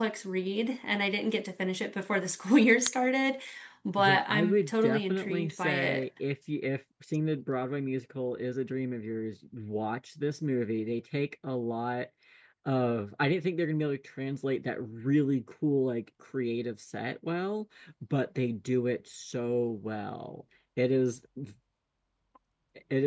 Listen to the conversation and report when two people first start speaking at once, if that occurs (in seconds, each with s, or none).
4.0 s